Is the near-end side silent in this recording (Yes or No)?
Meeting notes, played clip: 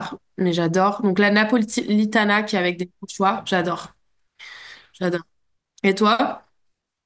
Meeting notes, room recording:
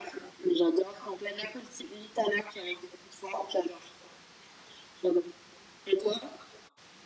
Yes